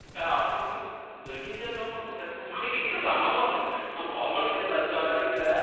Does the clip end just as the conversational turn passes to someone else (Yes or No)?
Yes